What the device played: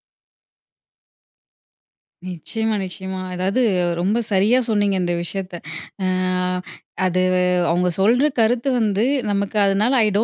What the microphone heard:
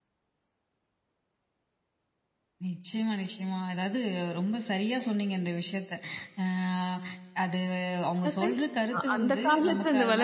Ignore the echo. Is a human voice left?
Yes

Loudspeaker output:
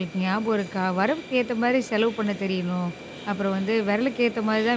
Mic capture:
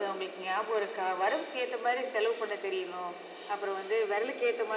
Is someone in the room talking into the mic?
No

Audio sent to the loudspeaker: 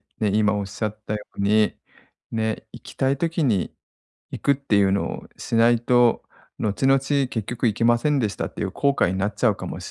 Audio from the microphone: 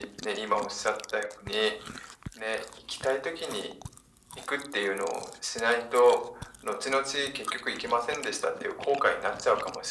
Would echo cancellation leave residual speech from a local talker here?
No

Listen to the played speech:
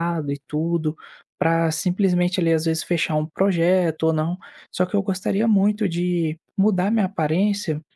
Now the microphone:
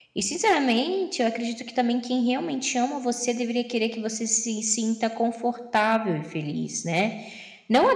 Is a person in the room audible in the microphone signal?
Yes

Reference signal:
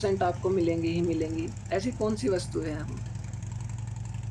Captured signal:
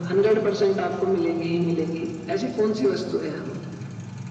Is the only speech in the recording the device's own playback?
Yes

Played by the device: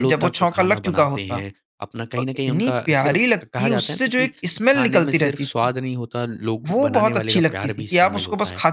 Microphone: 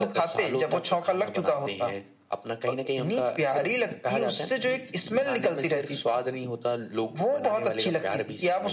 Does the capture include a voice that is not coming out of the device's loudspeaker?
No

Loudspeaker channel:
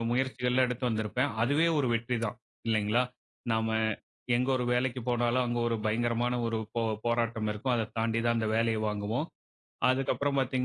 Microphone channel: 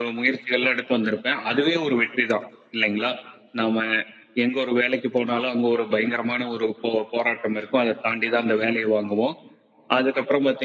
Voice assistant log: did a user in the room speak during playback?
No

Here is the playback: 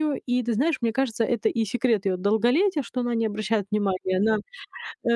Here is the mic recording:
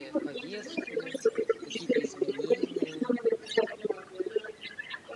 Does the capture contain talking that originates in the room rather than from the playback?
Yes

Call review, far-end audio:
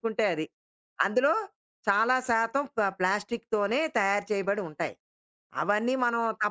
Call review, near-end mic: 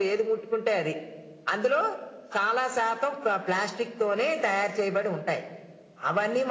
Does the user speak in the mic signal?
No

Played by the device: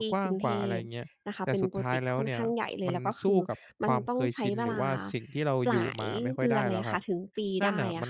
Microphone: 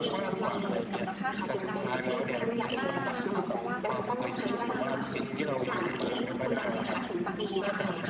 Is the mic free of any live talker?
No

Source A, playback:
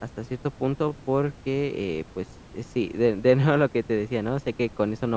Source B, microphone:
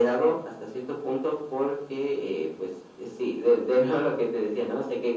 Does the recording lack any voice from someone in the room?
Yes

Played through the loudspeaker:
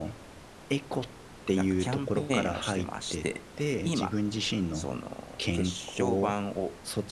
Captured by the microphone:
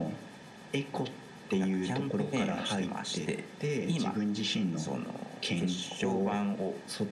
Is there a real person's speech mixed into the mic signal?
No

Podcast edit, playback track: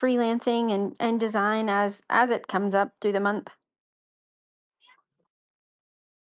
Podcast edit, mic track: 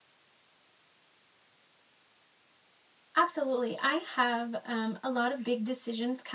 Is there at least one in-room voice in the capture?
Yes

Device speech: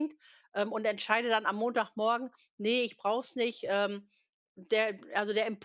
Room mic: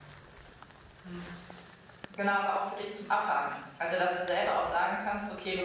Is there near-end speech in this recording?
Yes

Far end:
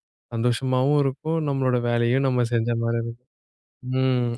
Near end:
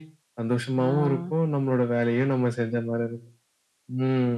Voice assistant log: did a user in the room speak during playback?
Yes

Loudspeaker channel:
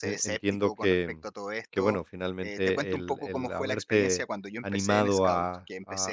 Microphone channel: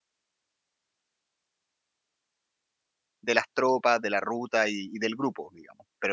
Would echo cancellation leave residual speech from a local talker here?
Yes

